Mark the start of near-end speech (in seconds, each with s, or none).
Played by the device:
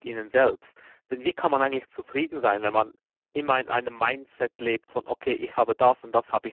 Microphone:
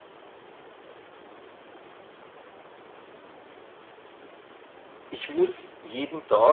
5.1 s